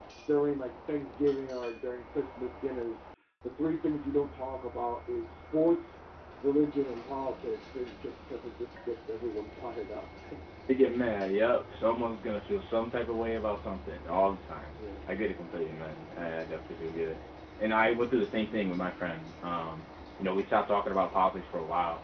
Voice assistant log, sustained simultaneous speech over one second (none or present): none